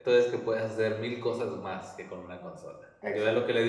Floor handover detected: No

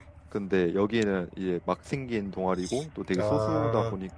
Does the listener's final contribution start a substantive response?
No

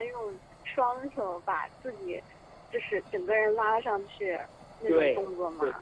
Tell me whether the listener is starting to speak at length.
Yes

